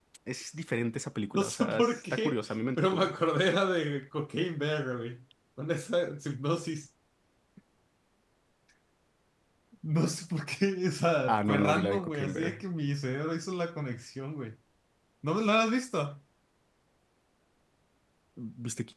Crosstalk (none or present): present